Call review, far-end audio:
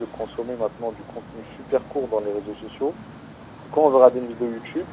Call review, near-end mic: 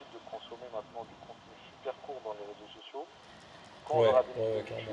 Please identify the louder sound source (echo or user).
user